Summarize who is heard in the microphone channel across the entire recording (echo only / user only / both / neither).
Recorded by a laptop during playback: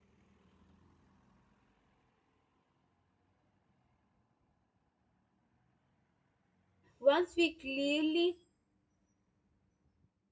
user only